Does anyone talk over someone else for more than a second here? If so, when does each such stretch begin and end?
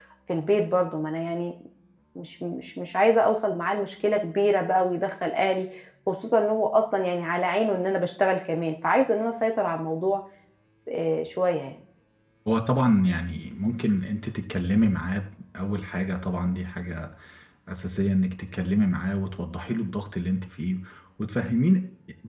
none

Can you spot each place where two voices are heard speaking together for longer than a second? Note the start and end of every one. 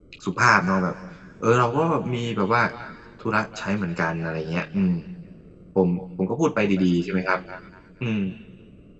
none

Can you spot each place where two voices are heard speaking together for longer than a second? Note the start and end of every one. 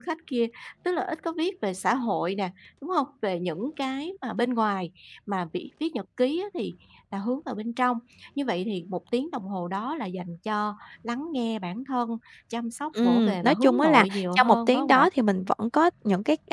13.0-15.1

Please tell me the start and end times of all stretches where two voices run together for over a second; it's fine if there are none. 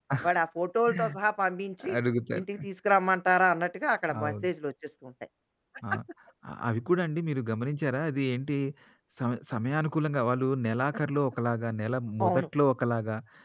none

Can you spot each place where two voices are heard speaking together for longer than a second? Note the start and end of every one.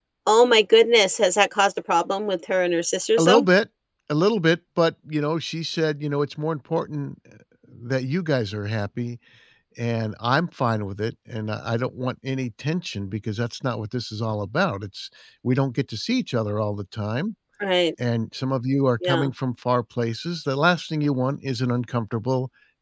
none

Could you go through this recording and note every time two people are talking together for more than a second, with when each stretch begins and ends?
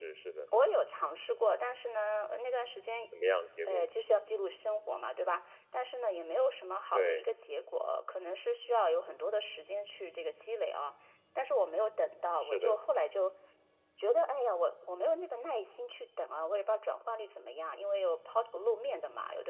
none

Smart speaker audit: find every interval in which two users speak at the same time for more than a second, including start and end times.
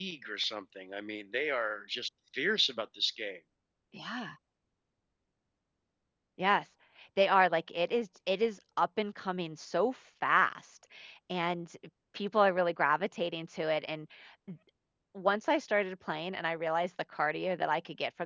none

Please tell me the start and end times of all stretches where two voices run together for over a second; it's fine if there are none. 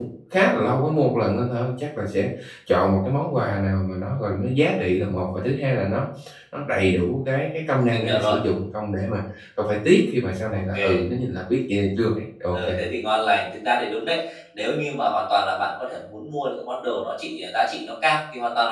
none

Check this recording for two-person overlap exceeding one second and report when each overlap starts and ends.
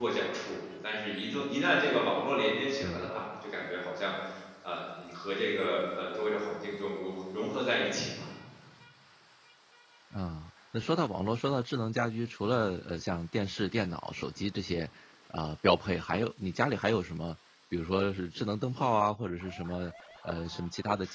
none

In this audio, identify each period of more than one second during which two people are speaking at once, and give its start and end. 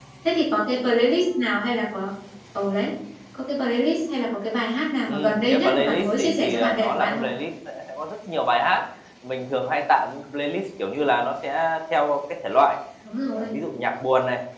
5.1-7.2

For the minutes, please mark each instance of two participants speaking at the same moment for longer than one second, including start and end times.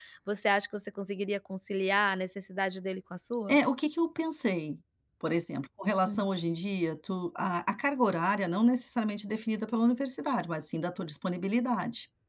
none

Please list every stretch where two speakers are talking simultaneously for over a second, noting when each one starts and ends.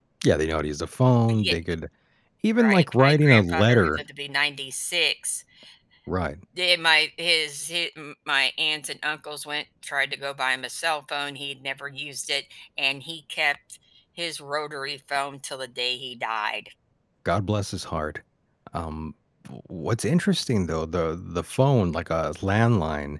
2.6-4.0

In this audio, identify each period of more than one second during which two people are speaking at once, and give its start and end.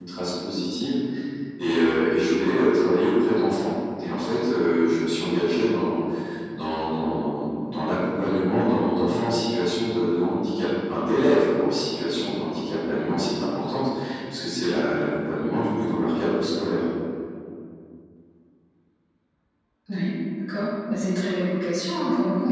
none

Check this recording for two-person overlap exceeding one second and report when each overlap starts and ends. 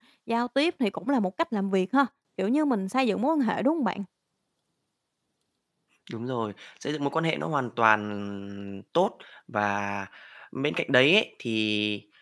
none

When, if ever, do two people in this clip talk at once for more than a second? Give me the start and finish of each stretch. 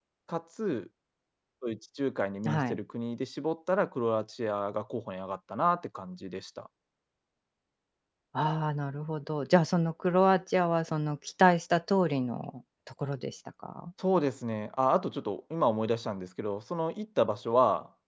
none

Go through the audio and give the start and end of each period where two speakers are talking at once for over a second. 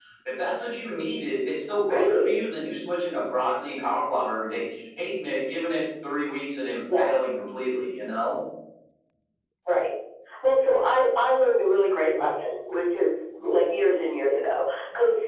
none

